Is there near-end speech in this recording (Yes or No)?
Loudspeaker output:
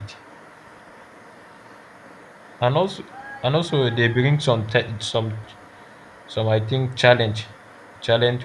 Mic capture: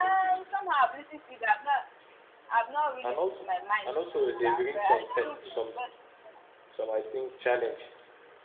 Yes